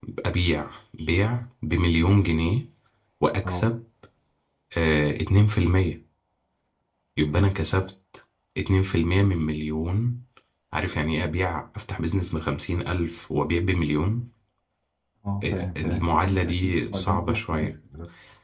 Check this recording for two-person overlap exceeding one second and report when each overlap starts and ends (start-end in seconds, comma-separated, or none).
15.4-17.7